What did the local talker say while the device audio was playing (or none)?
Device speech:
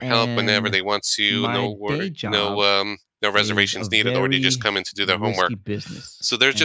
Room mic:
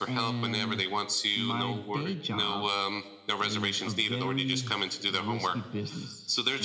none